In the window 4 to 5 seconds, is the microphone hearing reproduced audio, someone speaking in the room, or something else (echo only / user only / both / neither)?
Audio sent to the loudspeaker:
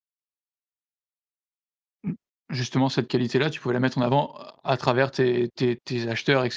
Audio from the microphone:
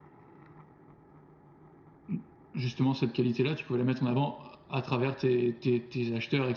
echo only